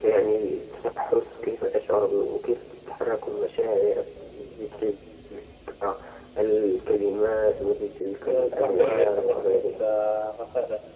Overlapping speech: Yes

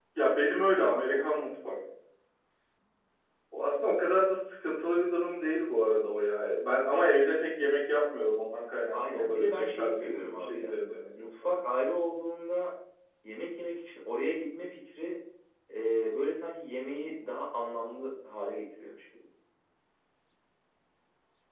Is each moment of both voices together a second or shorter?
No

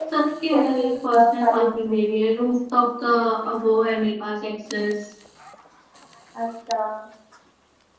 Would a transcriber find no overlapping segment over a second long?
No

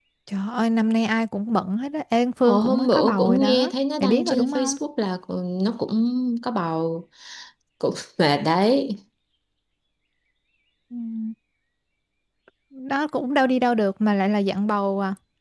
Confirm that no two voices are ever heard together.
No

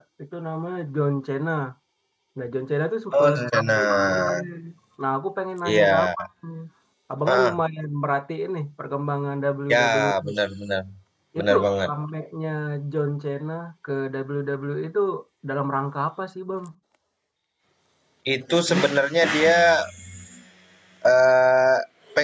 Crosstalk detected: Yes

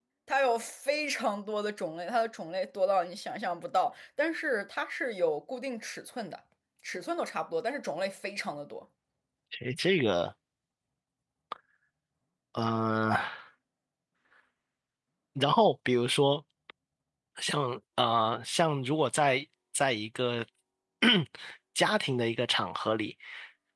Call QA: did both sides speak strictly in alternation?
Yes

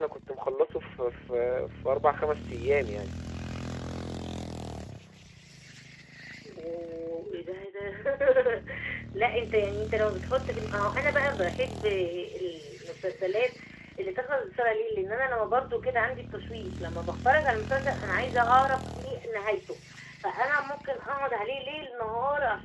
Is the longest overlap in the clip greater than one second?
No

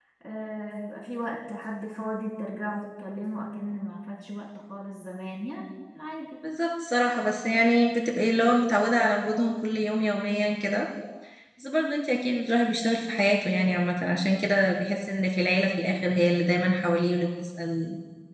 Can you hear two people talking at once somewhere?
No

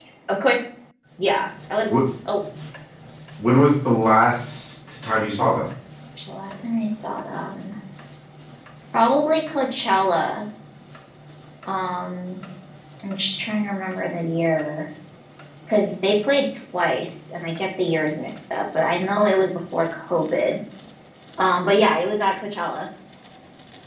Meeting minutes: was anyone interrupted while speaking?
No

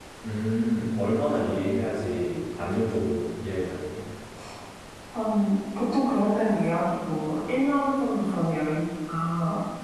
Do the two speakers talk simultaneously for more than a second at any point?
No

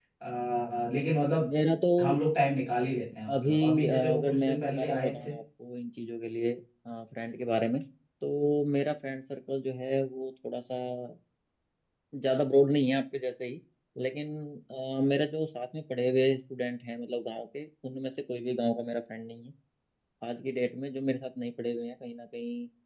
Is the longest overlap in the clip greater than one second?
Yes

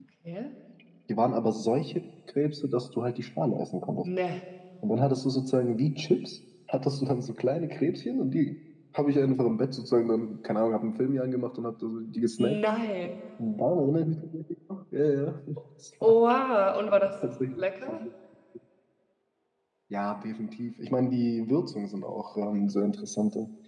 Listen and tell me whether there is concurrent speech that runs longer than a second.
No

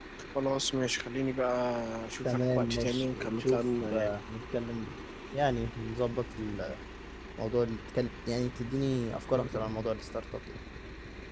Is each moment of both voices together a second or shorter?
No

